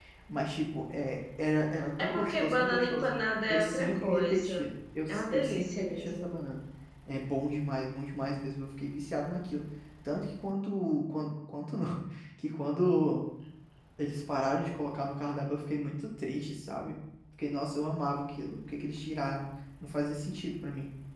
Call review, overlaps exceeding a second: present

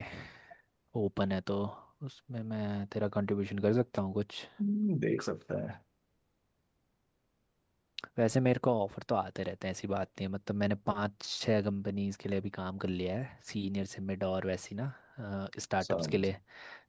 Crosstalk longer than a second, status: none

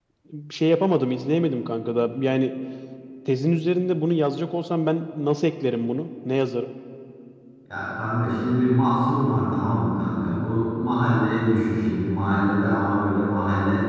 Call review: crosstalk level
none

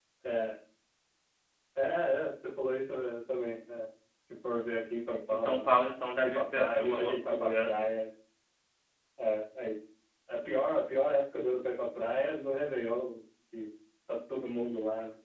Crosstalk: present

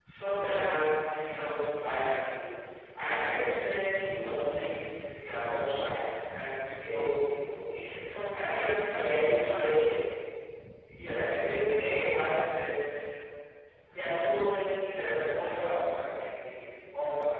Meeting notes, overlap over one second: present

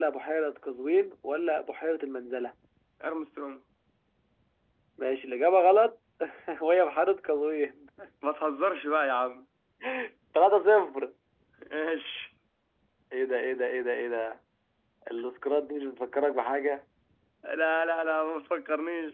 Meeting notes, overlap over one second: none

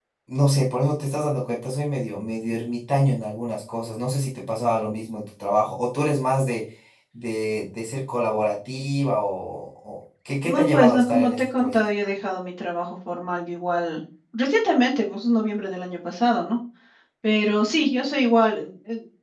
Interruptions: present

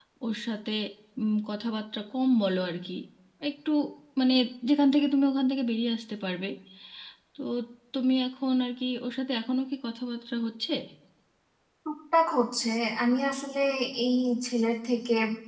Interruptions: none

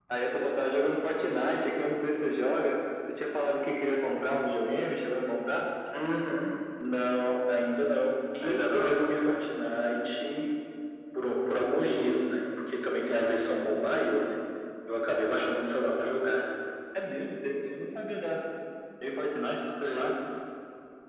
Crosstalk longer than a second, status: none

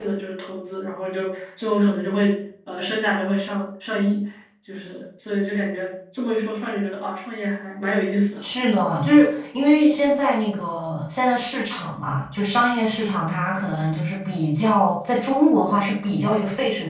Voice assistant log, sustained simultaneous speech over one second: none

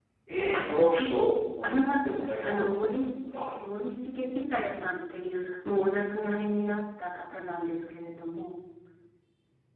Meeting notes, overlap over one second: present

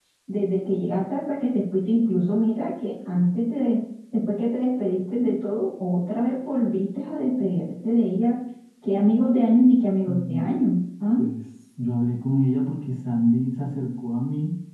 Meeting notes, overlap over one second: none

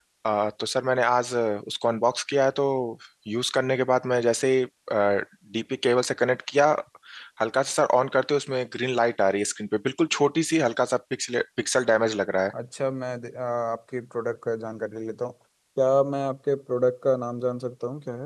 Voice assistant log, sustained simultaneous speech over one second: none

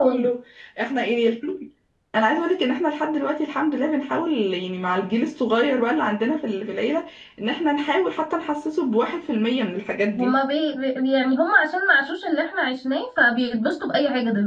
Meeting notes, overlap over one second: none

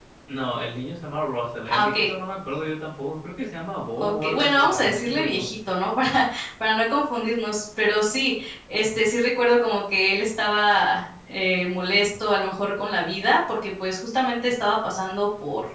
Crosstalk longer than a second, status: present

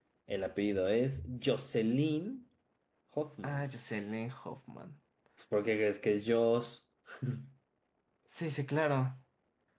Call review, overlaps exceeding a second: none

